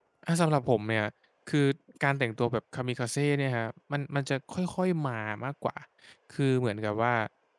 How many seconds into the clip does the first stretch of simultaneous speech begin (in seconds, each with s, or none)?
none